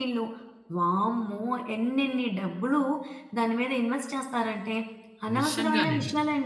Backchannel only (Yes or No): Yes